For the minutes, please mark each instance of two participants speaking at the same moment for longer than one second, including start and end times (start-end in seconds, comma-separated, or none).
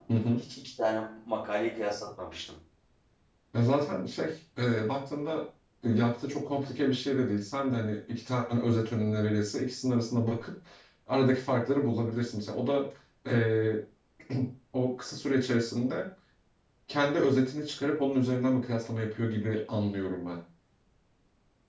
none